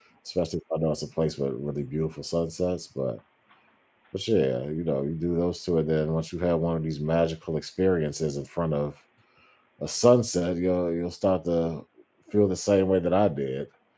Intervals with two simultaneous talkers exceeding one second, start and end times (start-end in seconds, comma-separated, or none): none